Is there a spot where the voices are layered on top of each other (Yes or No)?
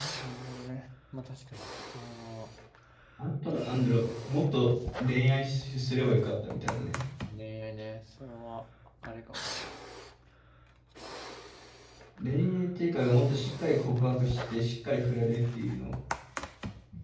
No